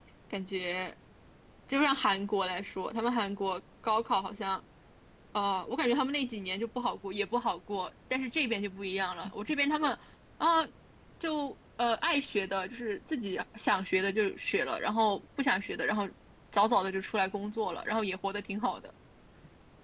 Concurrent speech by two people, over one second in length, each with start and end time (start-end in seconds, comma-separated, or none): none